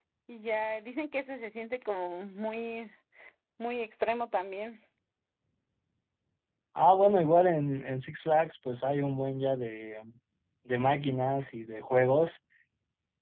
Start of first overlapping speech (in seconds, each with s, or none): none